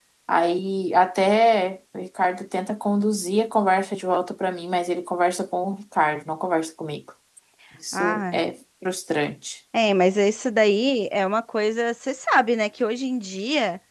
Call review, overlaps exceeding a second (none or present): none